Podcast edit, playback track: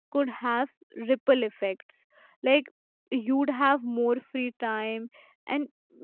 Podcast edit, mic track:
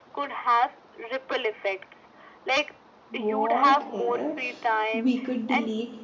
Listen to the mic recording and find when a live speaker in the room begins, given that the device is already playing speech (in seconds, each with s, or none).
3.1 s